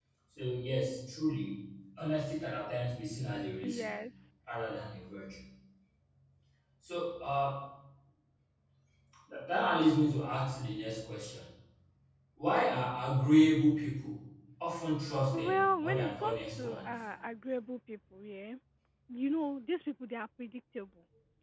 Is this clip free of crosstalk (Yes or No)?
No